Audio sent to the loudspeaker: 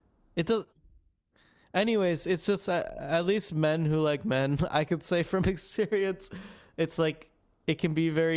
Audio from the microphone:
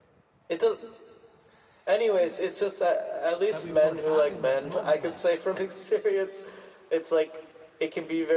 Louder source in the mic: echo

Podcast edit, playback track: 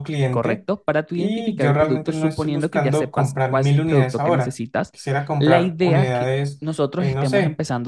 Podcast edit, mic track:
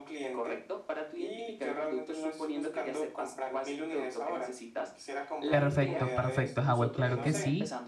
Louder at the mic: user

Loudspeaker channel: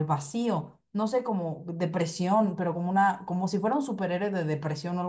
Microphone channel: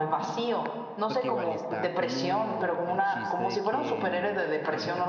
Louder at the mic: echo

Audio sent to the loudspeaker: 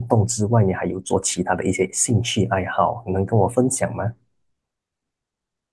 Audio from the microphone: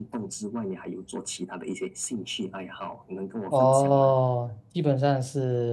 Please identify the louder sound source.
user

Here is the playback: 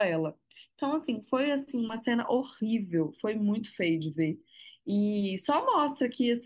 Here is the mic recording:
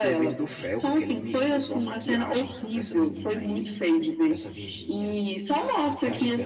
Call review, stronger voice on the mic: echo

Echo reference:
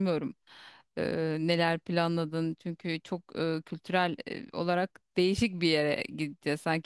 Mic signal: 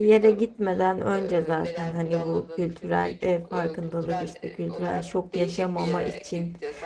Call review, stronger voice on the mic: user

